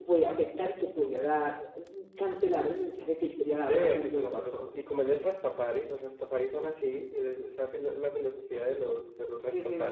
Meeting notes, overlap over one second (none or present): present